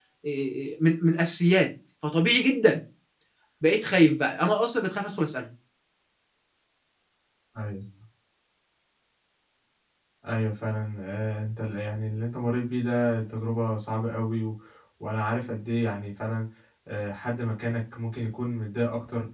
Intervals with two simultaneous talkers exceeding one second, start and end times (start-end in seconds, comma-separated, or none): none